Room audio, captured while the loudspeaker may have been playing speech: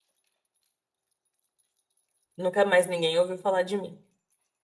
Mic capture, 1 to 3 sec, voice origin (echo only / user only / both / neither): user only